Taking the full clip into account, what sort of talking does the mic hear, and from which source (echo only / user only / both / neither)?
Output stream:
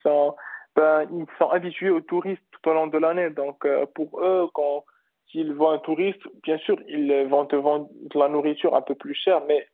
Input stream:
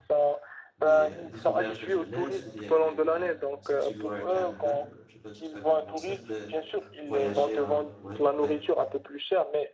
both